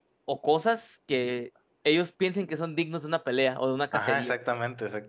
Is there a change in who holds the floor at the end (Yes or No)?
Yes